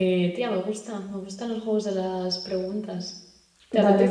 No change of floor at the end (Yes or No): No